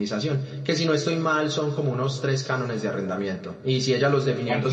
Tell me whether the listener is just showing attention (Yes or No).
Yes